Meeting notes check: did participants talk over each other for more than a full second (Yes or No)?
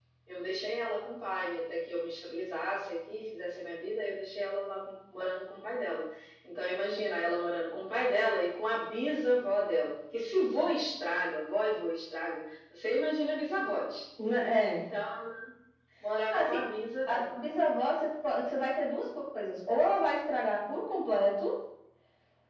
No